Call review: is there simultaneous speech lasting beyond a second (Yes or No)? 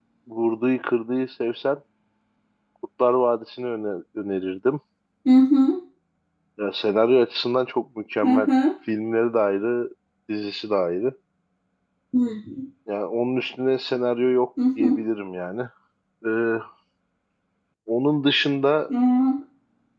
No